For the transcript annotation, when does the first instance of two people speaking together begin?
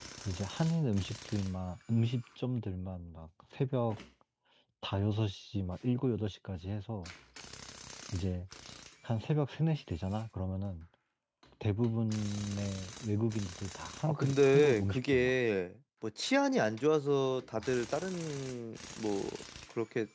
14.1 s

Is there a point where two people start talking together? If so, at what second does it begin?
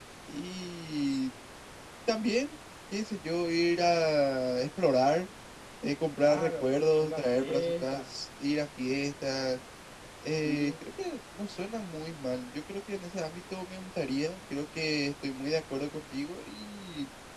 6.2 s

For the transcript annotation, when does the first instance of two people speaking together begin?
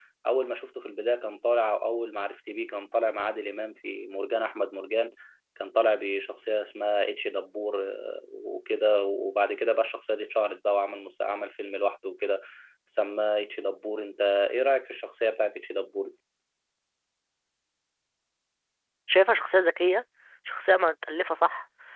none

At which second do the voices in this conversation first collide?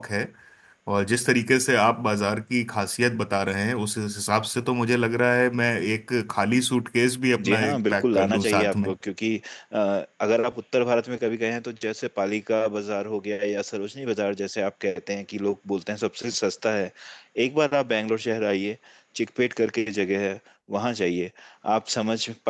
7.4 s

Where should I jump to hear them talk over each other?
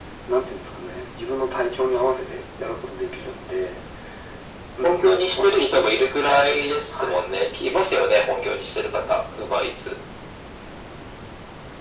4.8 s

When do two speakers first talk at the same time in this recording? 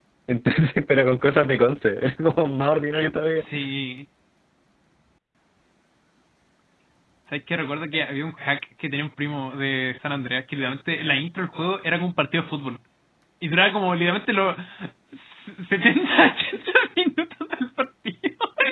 none

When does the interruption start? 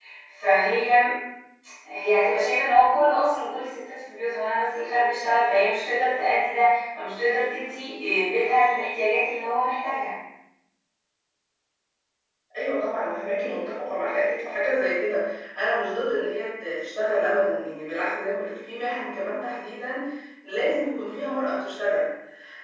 none

